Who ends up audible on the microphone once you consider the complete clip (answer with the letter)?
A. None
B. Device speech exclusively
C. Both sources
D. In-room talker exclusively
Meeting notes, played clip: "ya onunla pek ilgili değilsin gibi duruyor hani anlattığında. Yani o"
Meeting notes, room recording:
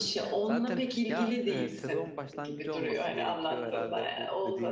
C